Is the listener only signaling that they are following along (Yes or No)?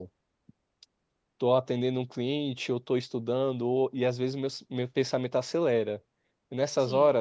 Yes